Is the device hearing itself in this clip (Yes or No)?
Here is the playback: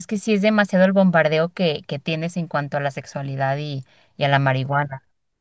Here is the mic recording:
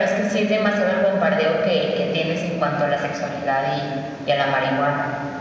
Yes